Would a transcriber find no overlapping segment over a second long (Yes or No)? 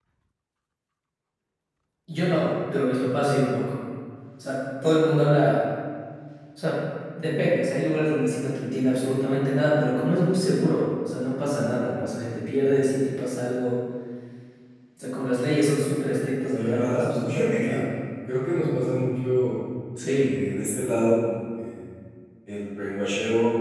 No